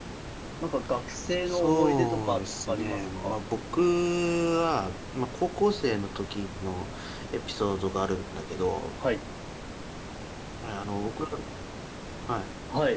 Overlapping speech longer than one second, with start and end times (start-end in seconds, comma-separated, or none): 1.5-3.3